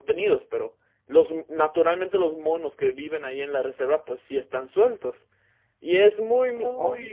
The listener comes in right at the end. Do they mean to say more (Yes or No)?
No